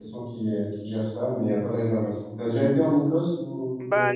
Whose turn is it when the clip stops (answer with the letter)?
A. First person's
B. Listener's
B